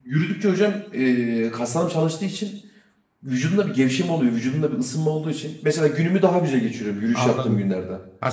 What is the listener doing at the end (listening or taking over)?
taking over